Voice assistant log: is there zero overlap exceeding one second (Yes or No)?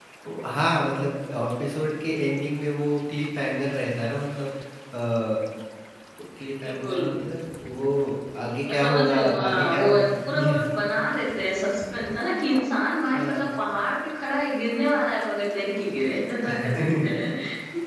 No